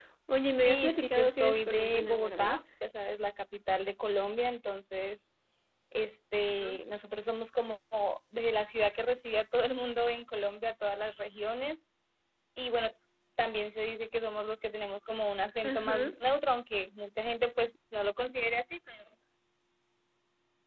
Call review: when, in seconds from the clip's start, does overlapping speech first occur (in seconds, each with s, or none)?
0.6 s